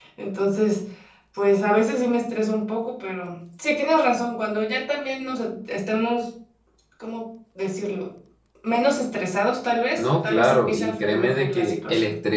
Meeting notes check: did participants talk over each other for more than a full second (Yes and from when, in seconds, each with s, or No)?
Yes, from 10.0 s